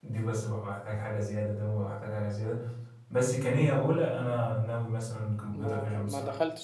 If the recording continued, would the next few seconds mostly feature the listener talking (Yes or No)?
Yes